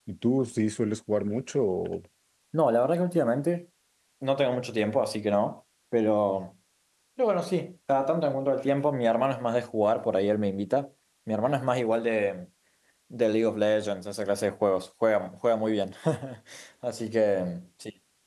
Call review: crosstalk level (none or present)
none